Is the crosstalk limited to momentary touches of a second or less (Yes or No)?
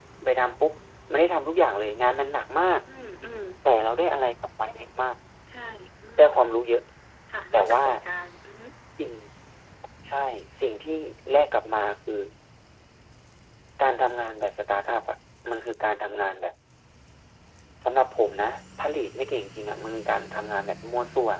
Yes